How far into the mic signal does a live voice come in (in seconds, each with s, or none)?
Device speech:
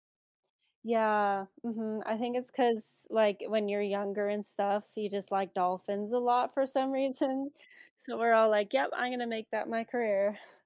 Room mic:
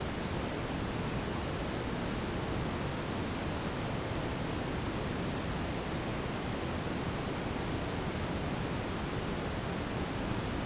none